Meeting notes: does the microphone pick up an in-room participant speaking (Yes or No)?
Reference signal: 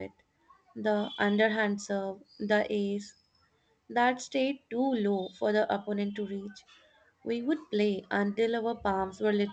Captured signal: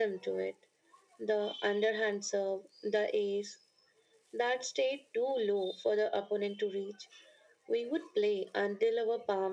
No